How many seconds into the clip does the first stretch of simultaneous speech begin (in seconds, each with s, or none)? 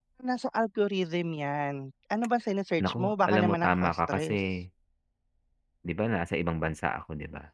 2.8 s